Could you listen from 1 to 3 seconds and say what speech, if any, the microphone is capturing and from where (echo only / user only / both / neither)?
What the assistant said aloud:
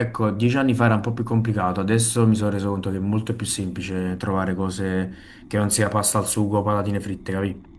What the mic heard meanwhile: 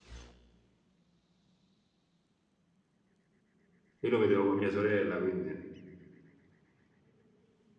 neither